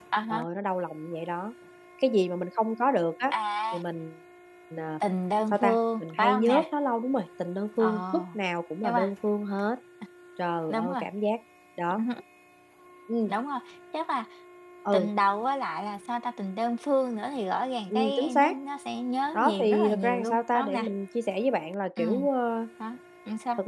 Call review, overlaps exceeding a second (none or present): present